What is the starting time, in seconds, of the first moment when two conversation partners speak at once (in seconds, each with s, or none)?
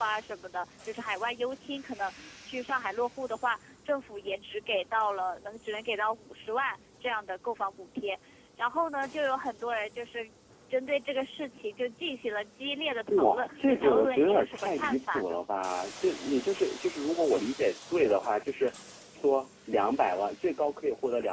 13.1 s